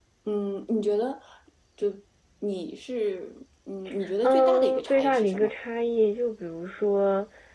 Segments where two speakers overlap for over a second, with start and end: 4.2-5.5

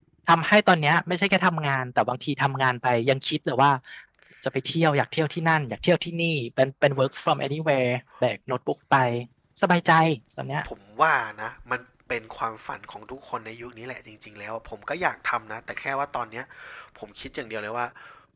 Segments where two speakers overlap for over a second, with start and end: none

